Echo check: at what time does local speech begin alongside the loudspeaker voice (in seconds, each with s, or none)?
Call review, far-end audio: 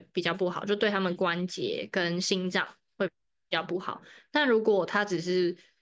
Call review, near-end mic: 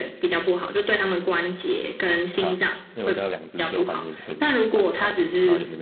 2.3 s